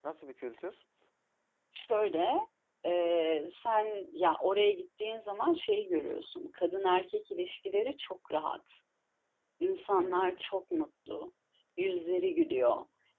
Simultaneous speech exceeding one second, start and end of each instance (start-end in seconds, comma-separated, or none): none